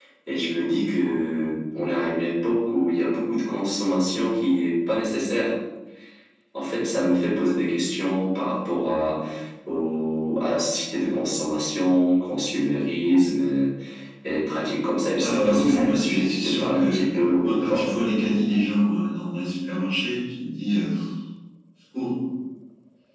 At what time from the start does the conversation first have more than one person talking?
15.2 s

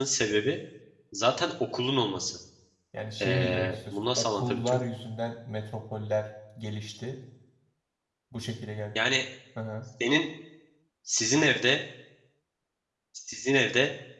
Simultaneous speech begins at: 3.2 s

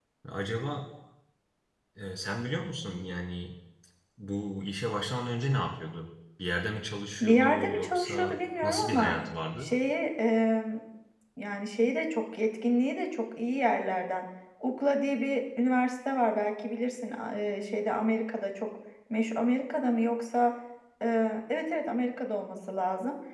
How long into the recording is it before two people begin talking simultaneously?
7.2 s

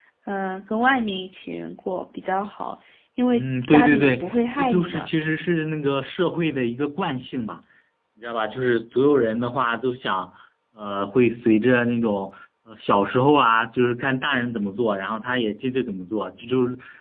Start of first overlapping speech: 3.3 s

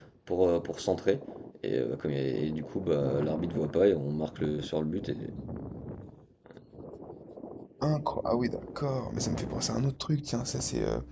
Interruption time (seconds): none

